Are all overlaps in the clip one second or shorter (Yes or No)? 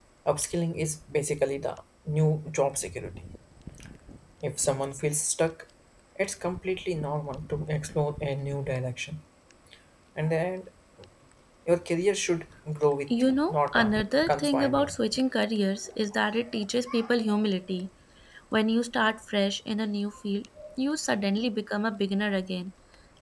No